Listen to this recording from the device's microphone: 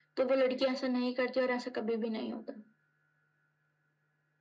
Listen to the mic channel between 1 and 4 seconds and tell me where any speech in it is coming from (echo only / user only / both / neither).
echo only